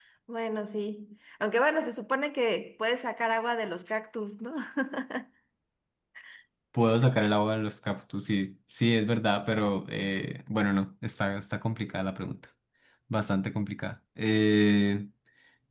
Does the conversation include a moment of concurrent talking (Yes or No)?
No